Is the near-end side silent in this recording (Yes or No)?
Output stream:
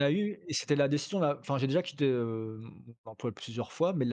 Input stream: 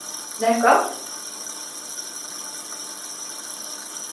No